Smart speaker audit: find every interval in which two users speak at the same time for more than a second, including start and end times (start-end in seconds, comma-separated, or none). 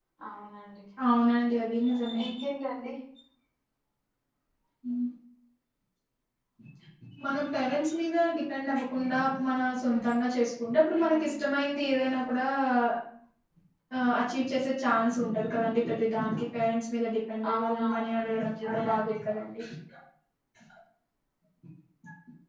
17.5-19.1